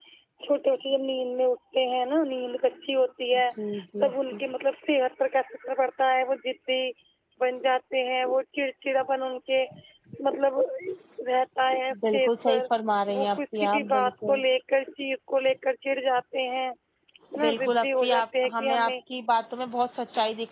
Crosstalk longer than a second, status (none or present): present